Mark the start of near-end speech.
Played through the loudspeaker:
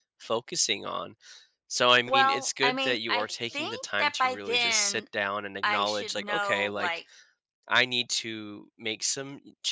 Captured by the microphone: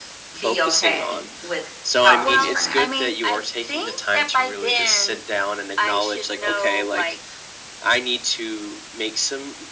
0 s

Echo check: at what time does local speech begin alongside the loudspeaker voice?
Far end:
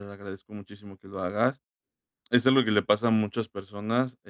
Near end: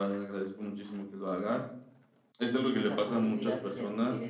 3 s

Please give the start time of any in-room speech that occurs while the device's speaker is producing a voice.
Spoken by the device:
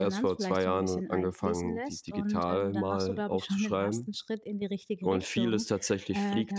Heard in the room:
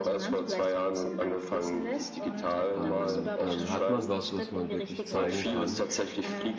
3 s

